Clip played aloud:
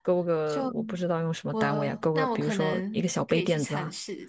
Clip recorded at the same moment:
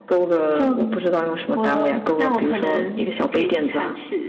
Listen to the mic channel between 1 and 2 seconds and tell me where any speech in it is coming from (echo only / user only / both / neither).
echo only